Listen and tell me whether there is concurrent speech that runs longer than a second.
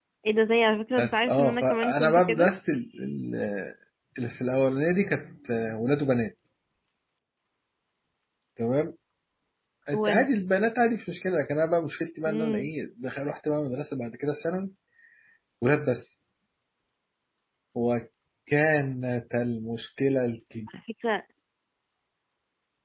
Yes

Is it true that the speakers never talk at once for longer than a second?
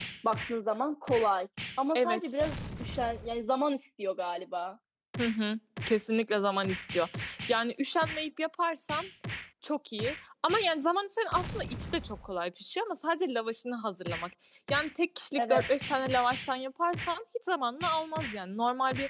Yes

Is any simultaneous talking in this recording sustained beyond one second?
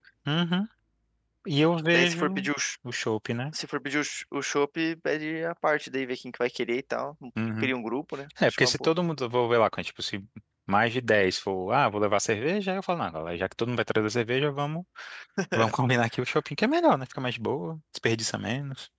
No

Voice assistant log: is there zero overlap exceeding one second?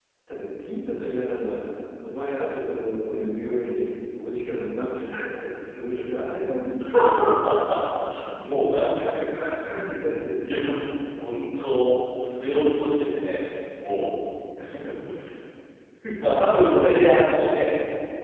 Yes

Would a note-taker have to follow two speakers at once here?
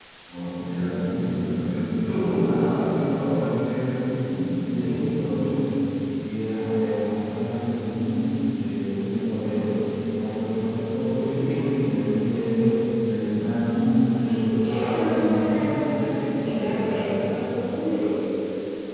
Yes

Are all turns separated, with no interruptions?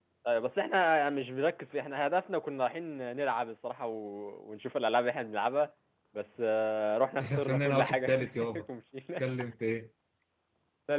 No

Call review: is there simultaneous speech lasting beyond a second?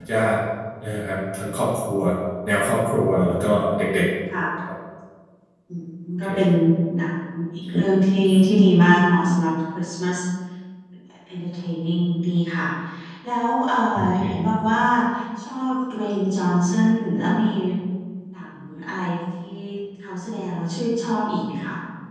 No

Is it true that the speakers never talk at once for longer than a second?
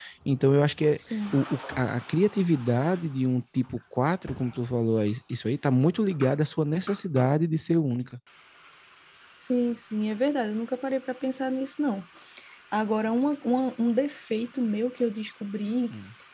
Yes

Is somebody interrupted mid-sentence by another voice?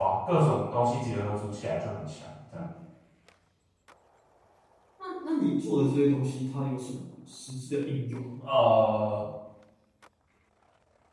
No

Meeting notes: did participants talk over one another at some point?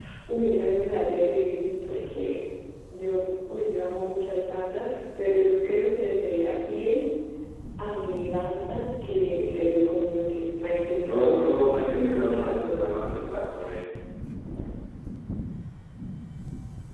Yes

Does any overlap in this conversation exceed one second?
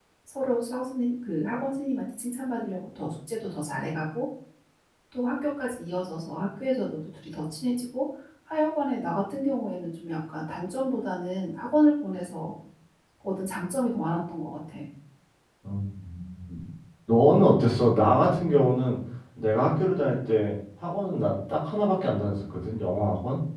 No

